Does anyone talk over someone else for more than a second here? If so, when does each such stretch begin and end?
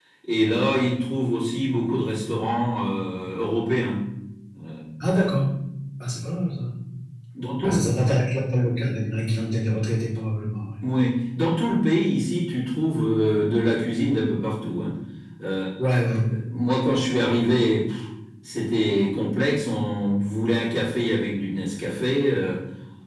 none

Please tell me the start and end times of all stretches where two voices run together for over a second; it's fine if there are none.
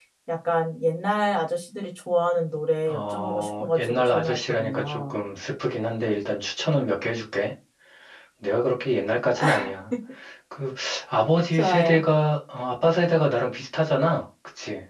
2.9-5.1

